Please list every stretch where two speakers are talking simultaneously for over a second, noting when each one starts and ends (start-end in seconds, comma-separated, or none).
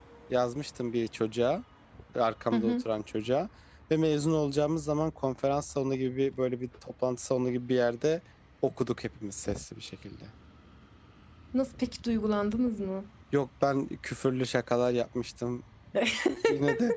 none